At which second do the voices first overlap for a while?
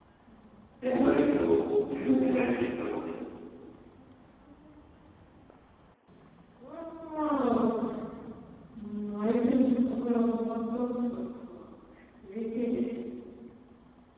none

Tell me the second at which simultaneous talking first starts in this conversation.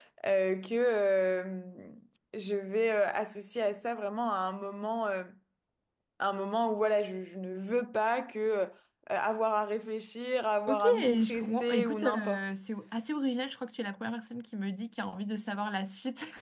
10.7 s

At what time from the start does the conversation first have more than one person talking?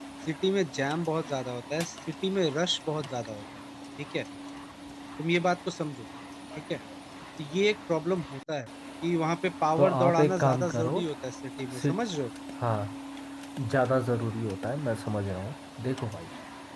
9.8 s

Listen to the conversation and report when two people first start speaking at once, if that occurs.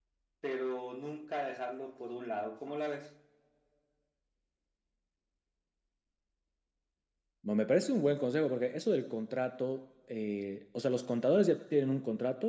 none

